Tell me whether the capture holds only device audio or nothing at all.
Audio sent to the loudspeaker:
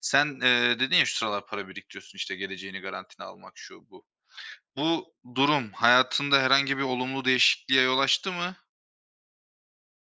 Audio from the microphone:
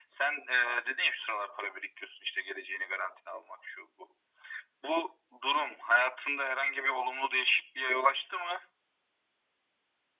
Yes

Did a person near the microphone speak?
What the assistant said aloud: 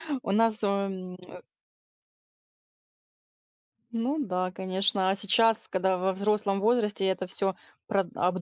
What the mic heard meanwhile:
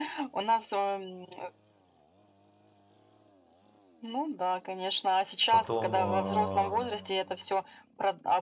Yes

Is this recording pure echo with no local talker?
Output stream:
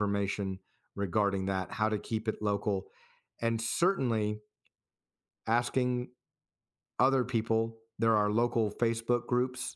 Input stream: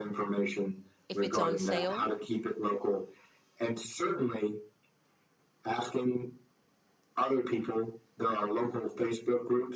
No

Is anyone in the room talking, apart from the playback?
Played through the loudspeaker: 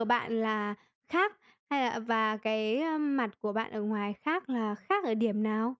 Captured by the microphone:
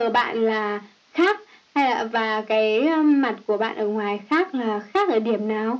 No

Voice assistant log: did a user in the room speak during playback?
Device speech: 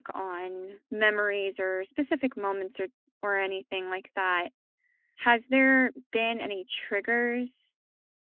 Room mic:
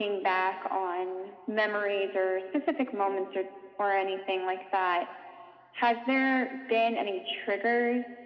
No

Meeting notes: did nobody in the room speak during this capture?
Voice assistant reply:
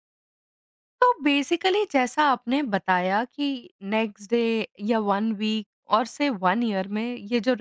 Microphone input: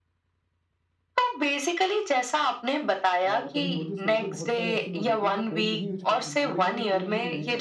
No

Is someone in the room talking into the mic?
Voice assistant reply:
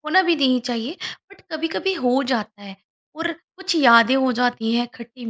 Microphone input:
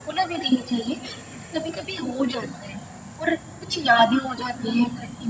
No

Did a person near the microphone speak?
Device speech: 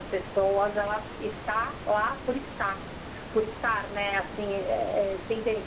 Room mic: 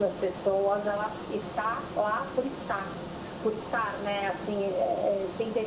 No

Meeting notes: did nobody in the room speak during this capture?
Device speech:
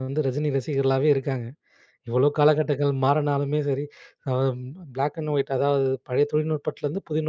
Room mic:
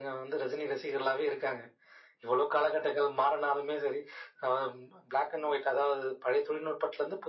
Yes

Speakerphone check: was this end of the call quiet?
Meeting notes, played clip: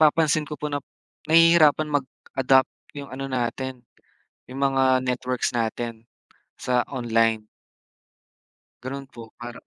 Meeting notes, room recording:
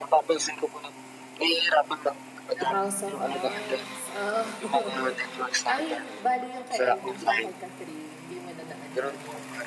No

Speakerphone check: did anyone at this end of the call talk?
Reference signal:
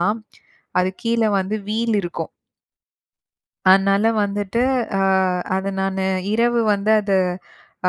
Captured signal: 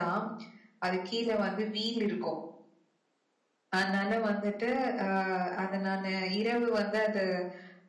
No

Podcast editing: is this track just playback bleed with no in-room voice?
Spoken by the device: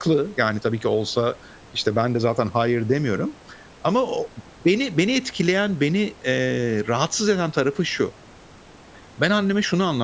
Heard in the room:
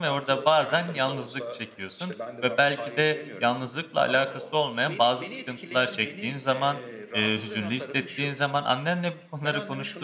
No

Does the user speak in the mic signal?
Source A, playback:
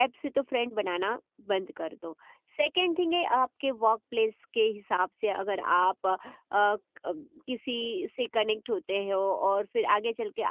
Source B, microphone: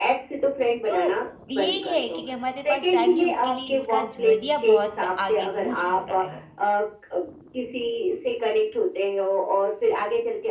Yes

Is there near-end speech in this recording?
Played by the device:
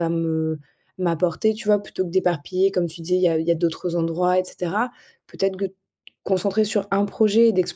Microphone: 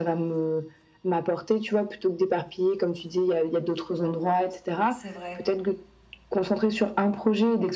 Yes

